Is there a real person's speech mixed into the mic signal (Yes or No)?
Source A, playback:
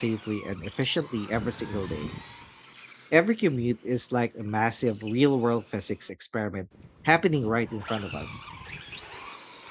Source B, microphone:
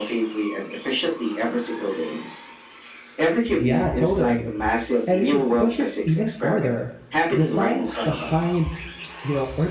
Yes